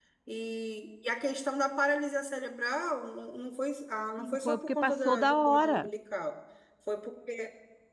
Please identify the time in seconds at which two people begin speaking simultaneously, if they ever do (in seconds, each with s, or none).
4.2 s